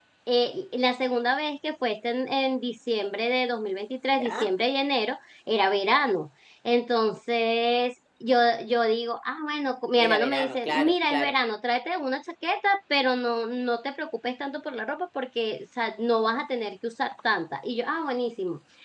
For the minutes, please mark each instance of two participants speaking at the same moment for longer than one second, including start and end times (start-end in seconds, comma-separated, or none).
10.1-11.3